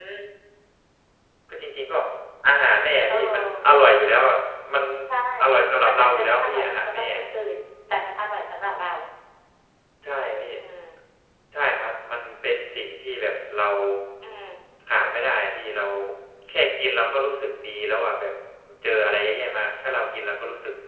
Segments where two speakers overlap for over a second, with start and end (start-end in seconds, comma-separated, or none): 5.8-7.0